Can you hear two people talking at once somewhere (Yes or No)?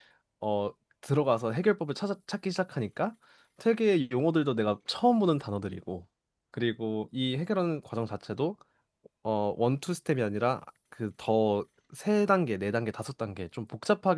No